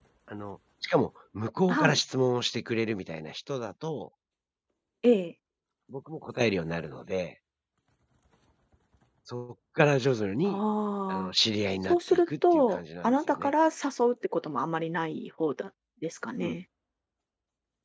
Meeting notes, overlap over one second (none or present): present